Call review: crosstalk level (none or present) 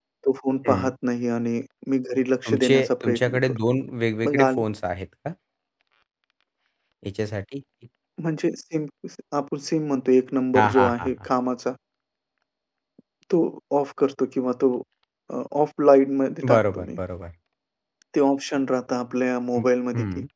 present